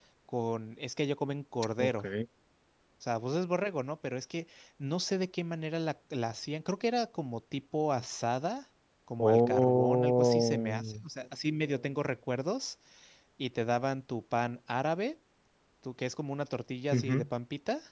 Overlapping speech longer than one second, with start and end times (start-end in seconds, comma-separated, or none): 9.2-10.9